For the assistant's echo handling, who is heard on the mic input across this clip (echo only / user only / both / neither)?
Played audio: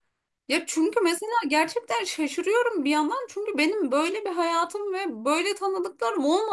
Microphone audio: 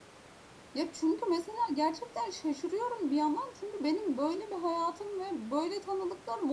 echo only